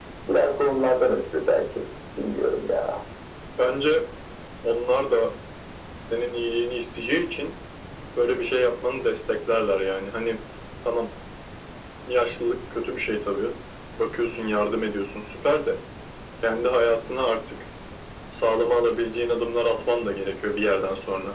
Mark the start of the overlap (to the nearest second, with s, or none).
none